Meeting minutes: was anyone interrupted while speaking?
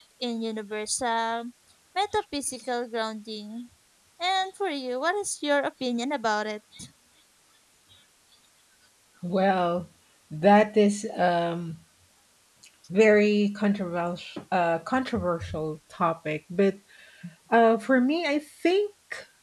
No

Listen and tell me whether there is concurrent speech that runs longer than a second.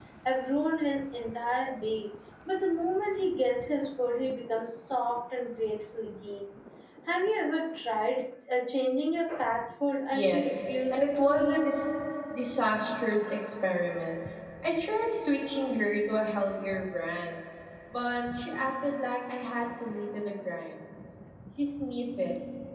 Yes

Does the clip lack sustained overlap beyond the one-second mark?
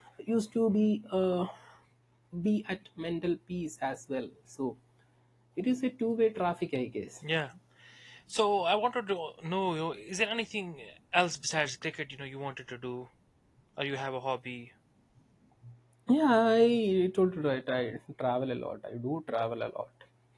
Yes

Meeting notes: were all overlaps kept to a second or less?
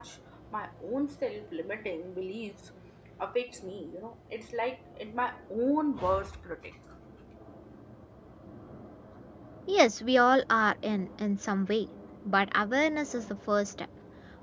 Yes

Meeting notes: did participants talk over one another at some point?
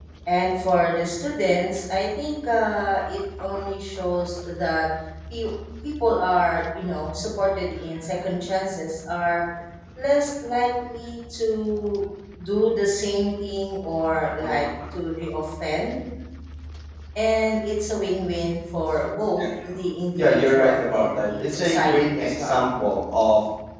Yes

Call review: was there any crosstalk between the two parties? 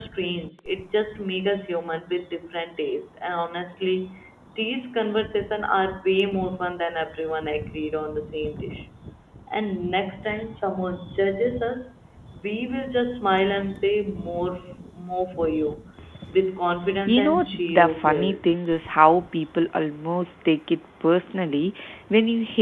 Yes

